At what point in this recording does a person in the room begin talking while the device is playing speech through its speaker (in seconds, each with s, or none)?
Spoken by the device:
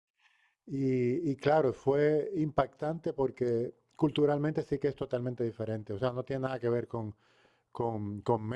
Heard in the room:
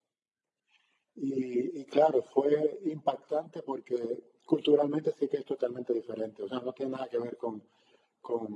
none